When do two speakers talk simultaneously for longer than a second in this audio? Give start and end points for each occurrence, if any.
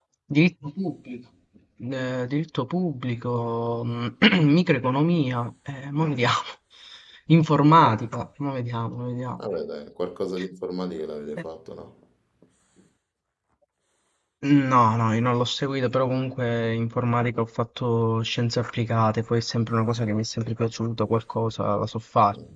none

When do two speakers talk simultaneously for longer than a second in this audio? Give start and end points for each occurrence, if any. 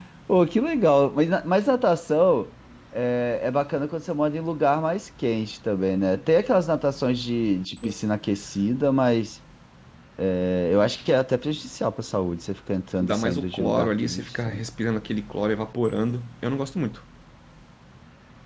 13.0-14.3

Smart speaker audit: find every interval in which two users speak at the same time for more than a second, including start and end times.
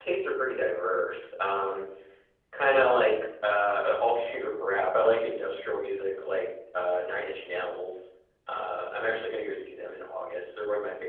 none

